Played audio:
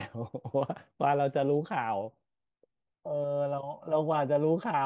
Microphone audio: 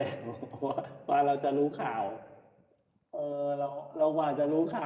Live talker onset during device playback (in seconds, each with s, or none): none